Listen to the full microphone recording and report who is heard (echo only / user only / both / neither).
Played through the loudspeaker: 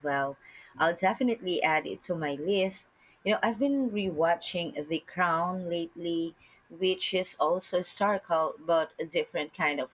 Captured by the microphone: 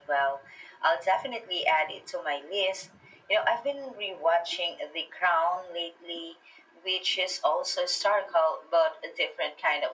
echo only